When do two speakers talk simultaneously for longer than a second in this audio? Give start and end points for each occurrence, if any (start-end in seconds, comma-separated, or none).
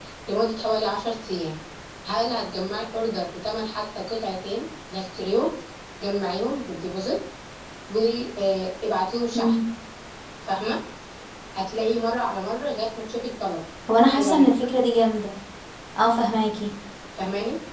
none